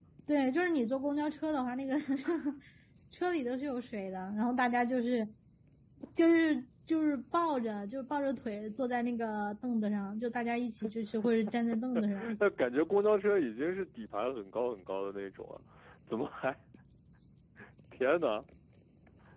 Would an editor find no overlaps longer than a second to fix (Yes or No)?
Yes